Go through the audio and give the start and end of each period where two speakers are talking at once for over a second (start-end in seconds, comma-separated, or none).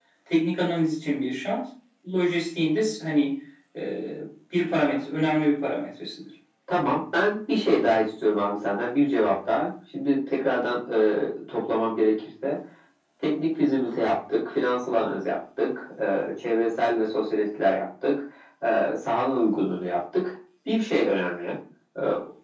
none